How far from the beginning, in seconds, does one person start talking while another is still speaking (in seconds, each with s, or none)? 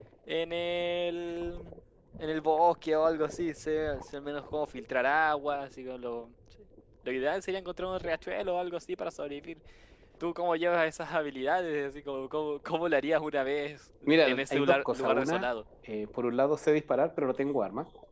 14.1 s